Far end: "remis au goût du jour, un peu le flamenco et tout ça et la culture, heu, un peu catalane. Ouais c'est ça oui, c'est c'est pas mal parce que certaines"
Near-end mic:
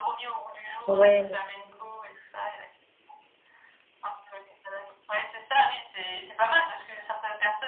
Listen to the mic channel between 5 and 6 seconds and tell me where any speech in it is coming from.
echo only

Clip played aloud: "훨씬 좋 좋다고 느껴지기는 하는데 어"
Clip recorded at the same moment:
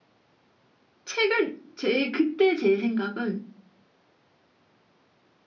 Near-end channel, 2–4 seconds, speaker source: user only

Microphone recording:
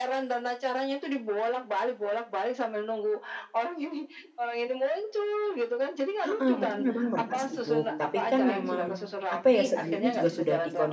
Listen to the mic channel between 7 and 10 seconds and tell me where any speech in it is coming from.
both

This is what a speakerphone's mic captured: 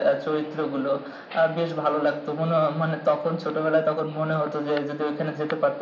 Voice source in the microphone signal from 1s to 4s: echo only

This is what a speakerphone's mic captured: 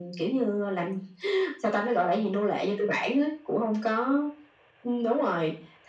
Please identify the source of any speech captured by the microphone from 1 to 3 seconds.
echo only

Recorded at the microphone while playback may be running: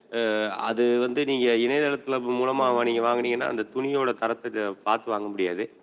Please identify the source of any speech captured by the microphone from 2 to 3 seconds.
both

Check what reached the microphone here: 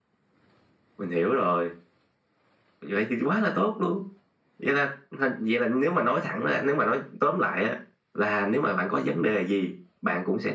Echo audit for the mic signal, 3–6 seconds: echo only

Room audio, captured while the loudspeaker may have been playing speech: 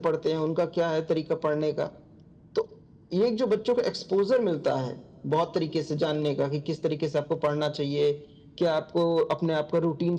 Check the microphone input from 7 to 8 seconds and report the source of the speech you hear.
echo only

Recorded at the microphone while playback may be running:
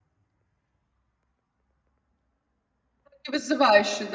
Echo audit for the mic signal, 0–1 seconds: neither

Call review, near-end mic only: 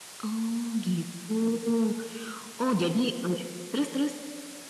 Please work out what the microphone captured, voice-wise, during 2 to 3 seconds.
echo only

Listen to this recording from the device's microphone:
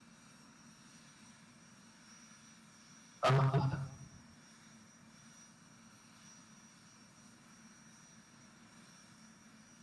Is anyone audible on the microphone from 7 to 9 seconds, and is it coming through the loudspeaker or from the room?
neither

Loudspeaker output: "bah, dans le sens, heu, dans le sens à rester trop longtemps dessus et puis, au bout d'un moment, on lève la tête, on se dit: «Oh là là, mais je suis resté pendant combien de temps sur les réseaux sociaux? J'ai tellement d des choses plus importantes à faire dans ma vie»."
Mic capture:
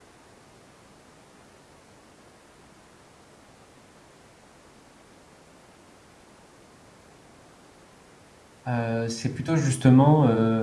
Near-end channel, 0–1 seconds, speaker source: neither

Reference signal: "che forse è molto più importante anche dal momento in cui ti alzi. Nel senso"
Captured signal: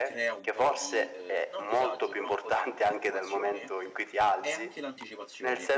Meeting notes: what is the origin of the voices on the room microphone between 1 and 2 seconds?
both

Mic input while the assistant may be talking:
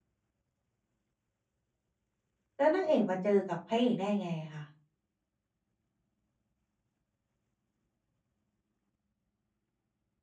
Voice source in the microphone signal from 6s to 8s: neither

